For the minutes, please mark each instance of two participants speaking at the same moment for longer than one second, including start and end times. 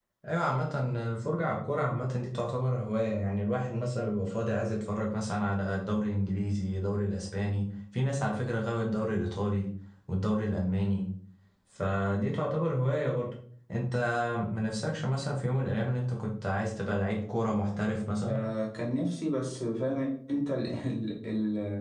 none

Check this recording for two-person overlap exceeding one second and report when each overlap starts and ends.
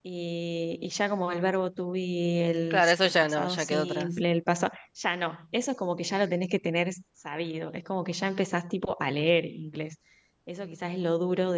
2.7-4.1

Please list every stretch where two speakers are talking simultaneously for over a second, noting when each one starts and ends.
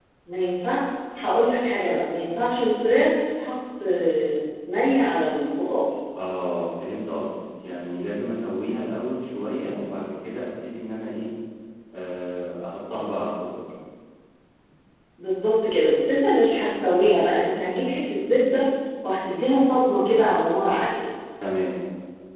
none

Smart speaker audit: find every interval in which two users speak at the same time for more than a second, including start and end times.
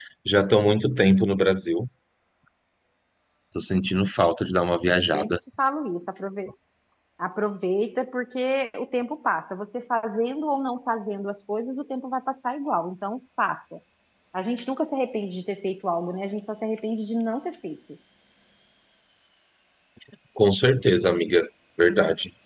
none

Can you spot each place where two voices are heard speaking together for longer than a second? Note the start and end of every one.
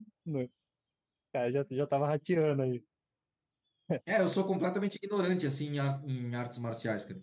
none

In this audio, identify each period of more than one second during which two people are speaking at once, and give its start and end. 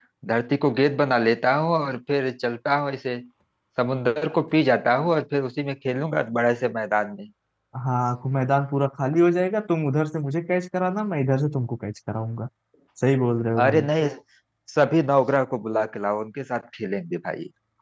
none

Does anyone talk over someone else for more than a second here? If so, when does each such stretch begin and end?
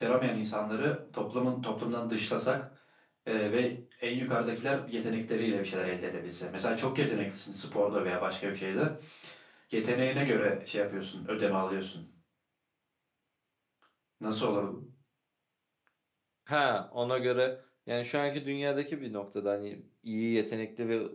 none

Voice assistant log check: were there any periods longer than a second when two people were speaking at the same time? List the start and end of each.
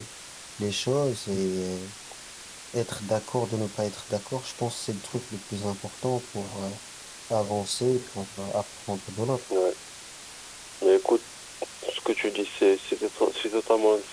none

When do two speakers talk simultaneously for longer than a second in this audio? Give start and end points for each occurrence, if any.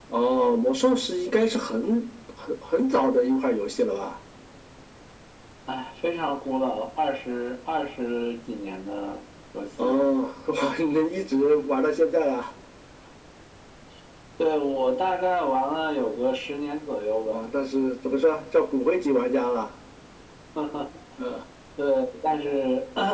none

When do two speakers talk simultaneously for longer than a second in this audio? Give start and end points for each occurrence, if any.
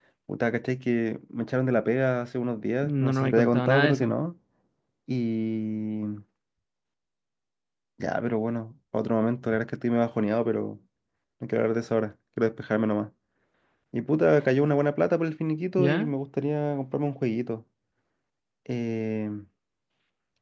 2.8-4.1

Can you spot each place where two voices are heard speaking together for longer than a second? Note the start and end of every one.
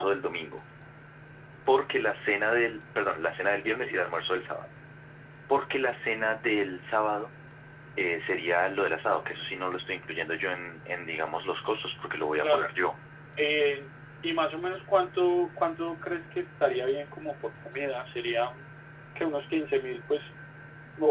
none

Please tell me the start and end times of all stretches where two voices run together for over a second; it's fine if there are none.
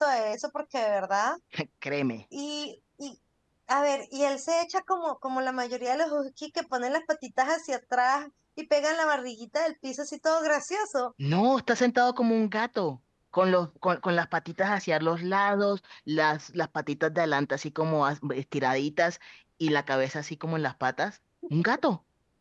none

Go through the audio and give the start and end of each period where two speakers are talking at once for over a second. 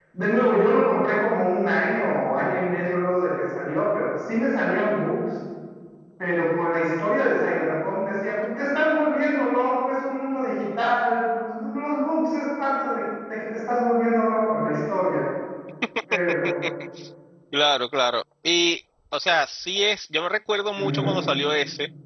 none

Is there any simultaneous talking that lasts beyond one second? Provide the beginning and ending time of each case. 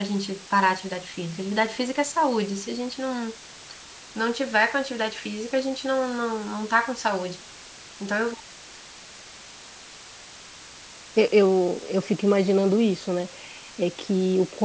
none

